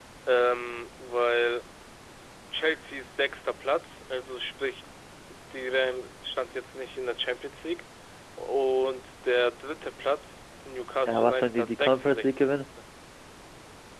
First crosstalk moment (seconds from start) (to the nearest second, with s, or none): 11 s